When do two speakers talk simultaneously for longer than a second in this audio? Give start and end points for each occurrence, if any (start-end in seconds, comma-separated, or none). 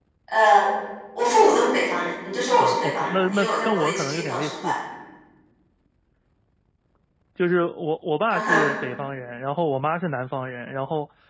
2.6-4.7